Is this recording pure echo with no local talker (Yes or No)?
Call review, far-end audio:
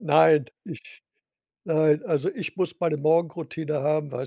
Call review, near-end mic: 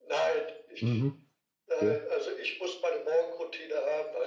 No